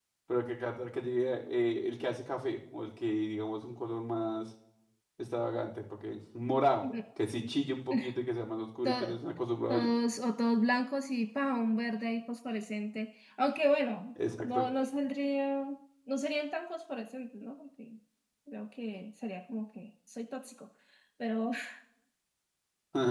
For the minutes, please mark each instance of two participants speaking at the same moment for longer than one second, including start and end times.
none

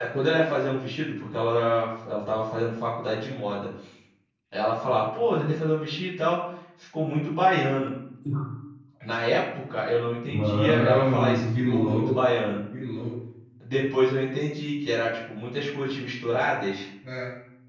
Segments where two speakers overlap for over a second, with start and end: 10.4-12.6

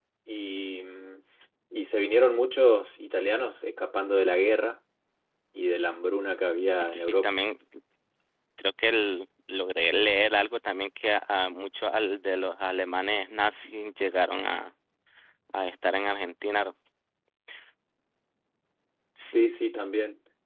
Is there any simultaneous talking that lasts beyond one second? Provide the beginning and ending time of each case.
none

